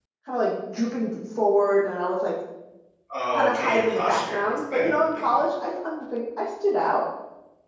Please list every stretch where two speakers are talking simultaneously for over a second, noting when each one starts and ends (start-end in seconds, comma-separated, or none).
3.3-5.2